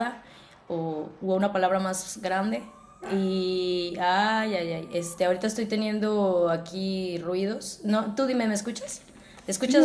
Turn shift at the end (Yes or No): Yes